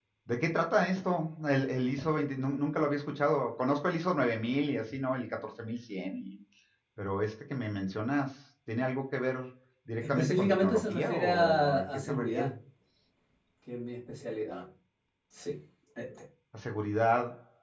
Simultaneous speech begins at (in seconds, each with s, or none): 10.0 s